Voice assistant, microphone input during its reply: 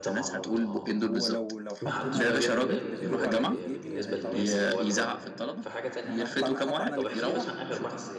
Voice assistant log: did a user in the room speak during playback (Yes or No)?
Yes